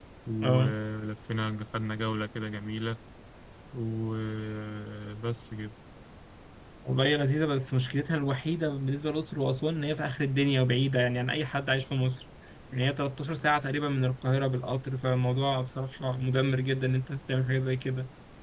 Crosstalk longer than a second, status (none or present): none